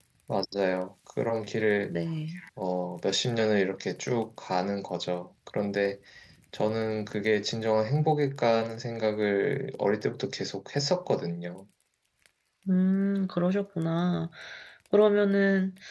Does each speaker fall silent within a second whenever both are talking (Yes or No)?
Yes